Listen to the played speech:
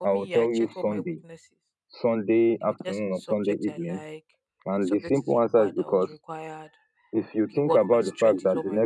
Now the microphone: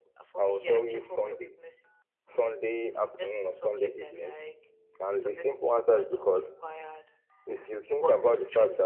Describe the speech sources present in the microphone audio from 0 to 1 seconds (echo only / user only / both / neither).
echo only